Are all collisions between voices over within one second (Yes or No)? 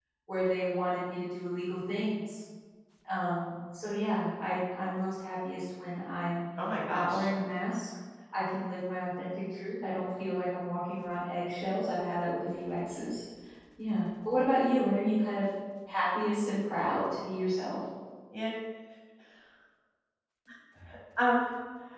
Yes